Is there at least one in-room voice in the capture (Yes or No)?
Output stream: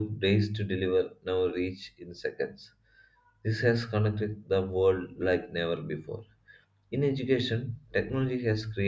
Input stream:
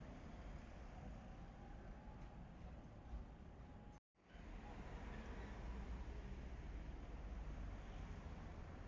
No